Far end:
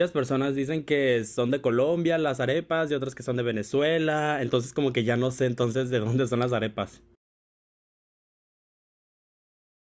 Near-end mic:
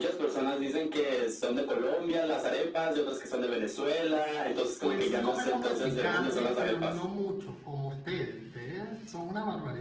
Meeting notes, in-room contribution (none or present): present